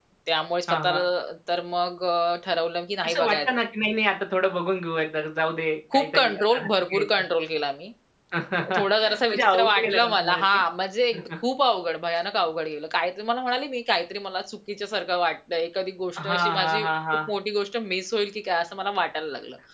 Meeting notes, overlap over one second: present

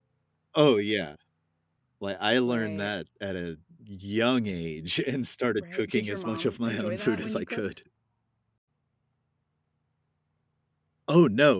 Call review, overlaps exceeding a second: present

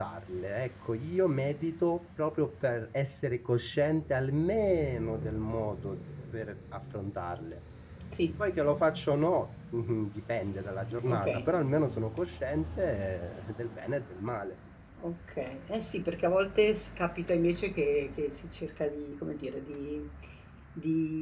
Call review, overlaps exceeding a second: none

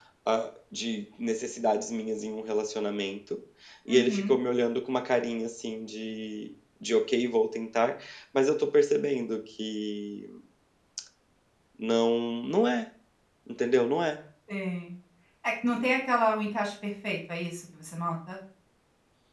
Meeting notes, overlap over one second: none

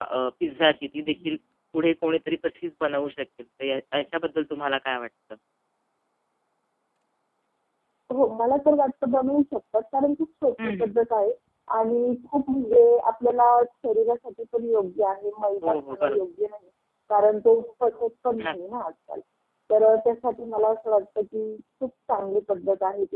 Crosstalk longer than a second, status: none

